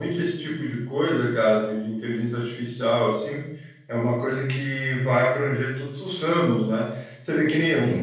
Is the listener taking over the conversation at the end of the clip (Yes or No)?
No